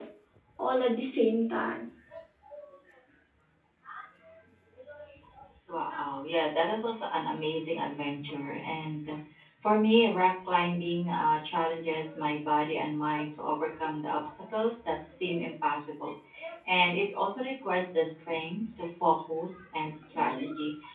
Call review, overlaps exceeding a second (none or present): none